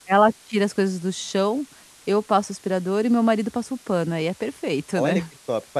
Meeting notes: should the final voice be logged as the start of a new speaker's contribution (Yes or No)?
Yes